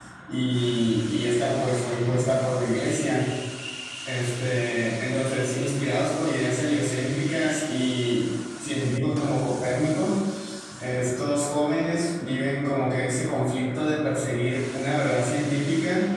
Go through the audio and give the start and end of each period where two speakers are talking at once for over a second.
none

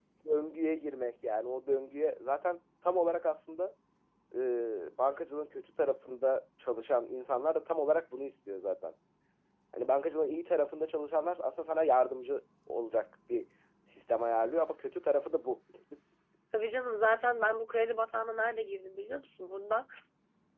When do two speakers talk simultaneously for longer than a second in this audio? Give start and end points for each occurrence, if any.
none

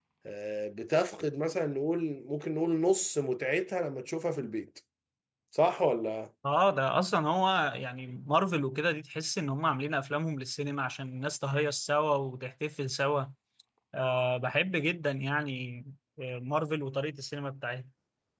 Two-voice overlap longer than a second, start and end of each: none

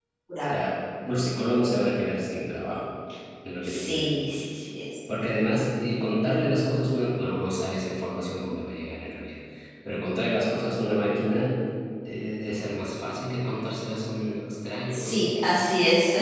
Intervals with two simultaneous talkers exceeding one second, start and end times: none

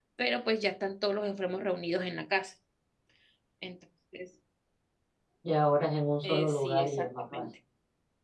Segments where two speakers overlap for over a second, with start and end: 6.2-7.4

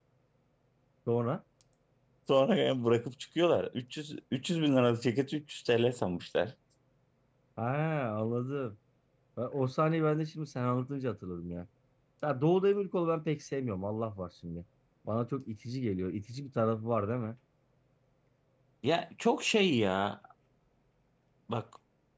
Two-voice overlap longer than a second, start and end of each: none

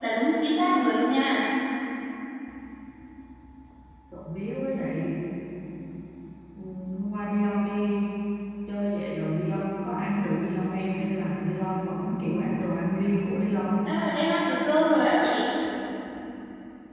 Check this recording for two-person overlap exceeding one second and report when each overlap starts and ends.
none

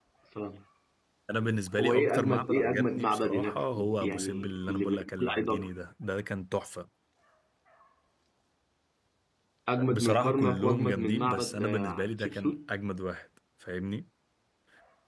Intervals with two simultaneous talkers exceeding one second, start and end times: 1.8-5.7, 9.9-12.7

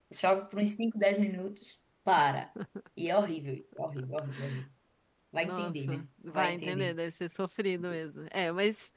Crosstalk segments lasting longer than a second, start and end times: 5.4-6.9

